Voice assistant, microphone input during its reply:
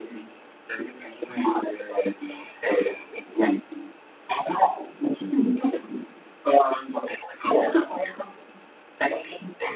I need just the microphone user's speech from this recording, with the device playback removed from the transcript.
none

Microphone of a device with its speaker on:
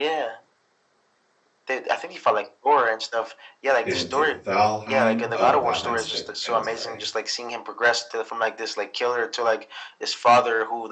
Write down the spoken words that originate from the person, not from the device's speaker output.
They went to V Valheim. Oh, no, Valheim's a different game, I'm sorry.

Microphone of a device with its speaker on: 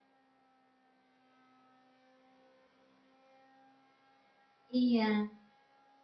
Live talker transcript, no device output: Iya.

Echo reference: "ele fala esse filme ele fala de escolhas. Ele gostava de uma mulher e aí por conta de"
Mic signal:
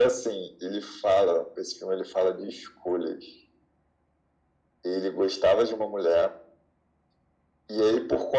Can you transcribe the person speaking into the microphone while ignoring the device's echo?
none

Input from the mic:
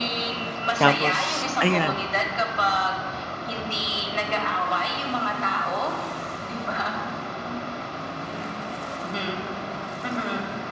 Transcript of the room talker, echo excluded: Tapos ayan.

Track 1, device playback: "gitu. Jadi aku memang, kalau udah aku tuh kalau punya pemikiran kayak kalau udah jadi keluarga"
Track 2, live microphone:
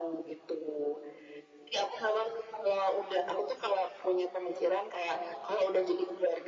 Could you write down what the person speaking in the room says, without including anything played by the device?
none

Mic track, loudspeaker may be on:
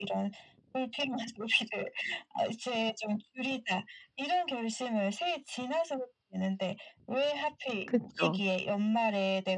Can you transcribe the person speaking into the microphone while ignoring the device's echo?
그쵸.

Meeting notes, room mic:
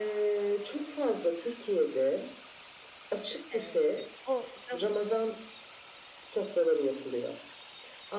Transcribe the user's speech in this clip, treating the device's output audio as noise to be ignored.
Eee, o davul

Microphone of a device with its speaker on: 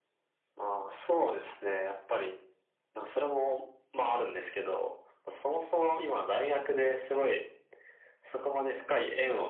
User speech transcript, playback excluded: none

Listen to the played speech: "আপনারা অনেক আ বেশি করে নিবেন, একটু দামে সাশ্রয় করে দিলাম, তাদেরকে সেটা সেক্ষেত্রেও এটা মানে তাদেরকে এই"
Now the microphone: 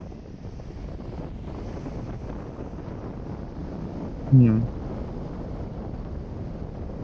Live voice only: হু।

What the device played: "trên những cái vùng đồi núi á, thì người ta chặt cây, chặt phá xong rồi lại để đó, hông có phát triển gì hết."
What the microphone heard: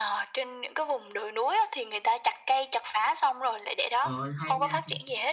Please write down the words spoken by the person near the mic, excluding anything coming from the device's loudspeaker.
trời ơi, hay nha, hay nha.

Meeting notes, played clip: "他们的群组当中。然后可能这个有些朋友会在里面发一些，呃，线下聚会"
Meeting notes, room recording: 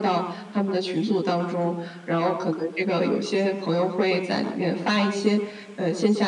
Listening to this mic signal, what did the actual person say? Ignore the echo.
none

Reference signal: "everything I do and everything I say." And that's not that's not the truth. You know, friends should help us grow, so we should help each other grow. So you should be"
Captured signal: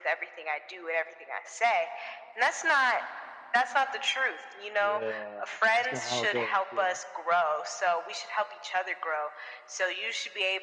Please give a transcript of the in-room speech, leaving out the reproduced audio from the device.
Yeah, that's not how it goes, yeah.

